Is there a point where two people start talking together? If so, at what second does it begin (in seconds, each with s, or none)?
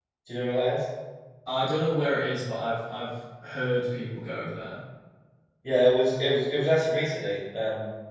none